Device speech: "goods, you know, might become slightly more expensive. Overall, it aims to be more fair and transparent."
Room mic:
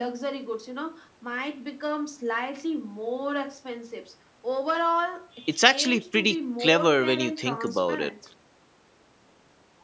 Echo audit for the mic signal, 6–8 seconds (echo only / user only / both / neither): both